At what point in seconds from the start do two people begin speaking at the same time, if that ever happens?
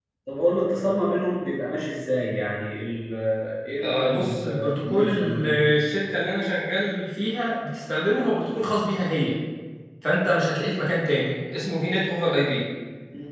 3.8 s

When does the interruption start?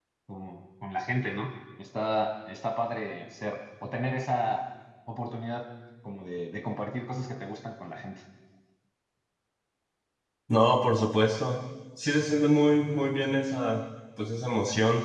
none

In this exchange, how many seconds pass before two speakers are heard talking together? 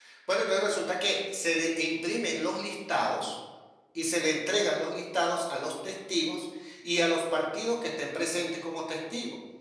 none

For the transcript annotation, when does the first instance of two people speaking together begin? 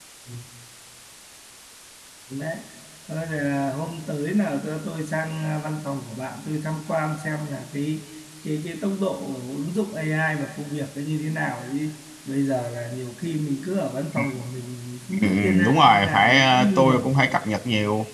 15.1 s

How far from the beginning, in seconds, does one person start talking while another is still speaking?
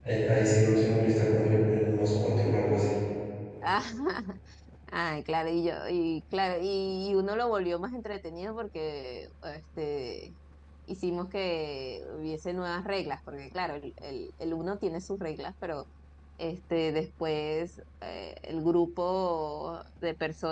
none

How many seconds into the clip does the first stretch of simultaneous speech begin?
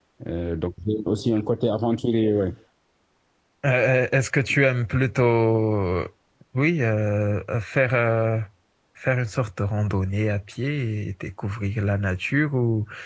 none

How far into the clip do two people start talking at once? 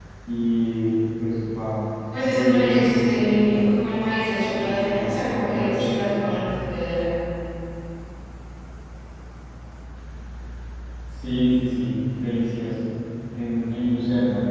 2.2 s

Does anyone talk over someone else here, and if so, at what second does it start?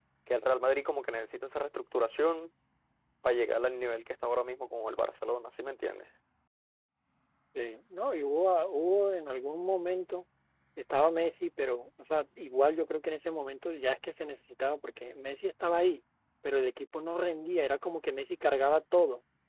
none

